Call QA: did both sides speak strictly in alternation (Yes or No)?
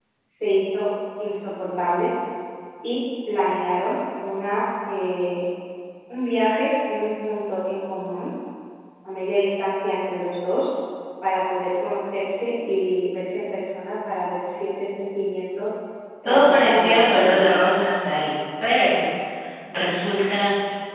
No